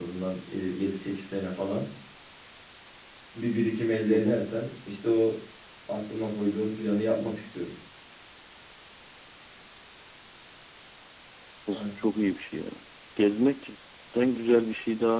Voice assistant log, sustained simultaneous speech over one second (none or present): none